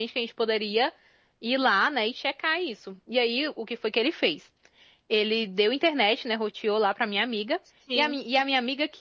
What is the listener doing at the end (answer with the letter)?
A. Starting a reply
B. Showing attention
B